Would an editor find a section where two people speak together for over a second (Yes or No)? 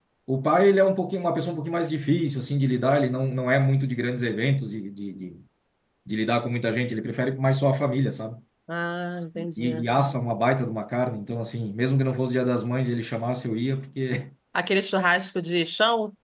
No